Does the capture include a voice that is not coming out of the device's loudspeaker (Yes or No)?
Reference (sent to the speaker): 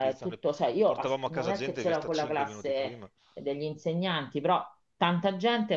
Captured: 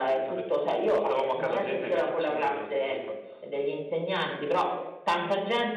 No